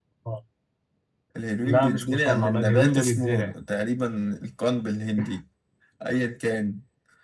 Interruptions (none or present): present